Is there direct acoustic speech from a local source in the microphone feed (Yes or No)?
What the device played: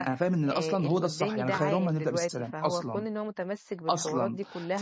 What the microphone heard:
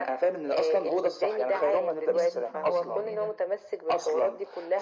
Yes